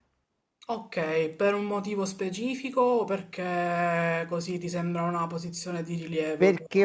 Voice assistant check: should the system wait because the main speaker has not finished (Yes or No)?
No